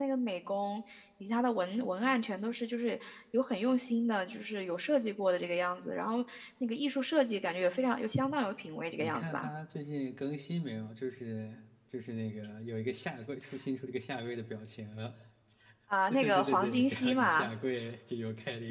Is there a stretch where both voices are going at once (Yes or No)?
Yes